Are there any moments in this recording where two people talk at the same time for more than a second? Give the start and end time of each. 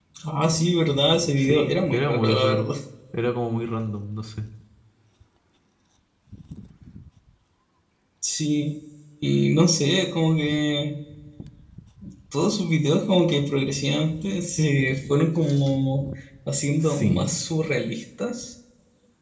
1.4-2.7

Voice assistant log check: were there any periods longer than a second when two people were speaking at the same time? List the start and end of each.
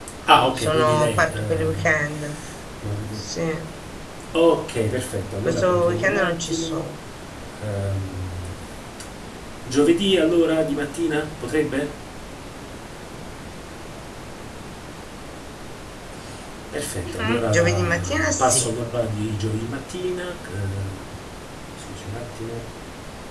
0.6-1.8, 5.5-6.9, 17.2-18.7

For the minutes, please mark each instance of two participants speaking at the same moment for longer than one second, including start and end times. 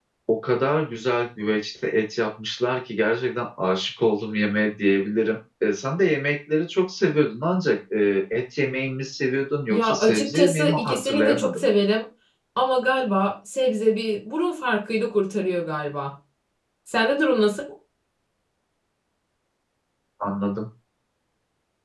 9.7-11.7

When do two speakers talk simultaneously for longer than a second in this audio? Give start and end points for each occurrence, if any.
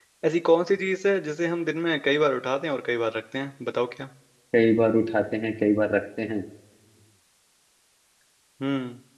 none

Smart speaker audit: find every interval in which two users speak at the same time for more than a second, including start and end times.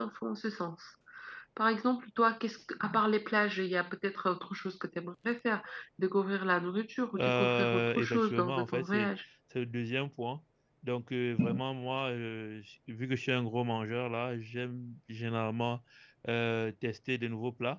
7.2-9.1

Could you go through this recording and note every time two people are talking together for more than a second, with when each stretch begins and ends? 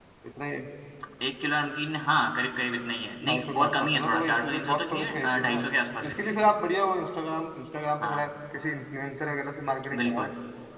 3.2-5.6

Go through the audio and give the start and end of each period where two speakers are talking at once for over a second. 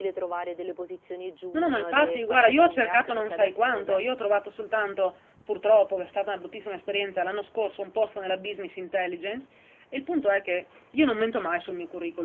1.5-4.0

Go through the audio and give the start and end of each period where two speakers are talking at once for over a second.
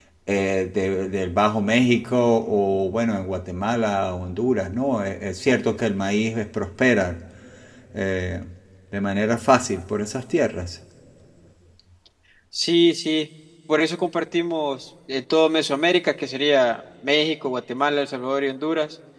none

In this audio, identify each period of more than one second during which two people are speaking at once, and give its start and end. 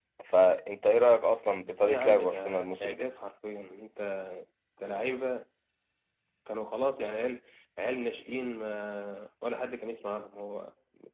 1.8-3.1

